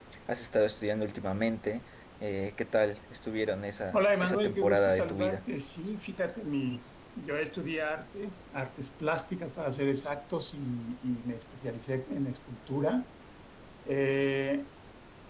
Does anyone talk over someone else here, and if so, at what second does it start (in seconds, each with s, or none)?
3.9 s